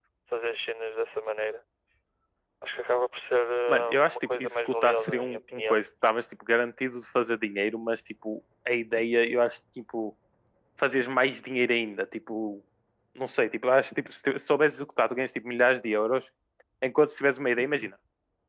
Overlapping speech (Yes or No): Yes